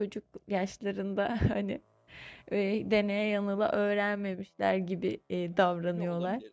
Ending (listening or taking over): taking over